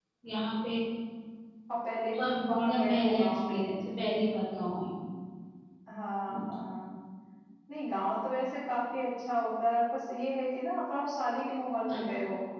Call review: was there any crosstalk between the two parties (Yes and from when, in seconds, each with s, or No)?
Yes, from 2.2 s